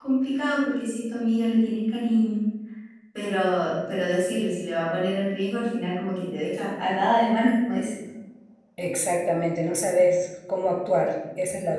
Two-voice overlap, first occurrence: none

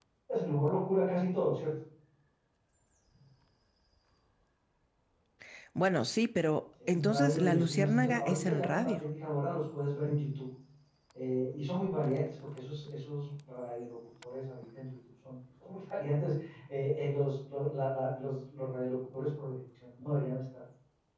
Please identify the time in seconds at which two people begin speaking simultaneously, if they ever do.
6.8 s

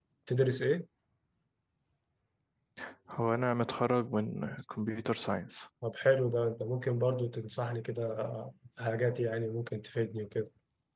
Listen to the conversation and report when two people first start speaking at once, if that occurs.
none

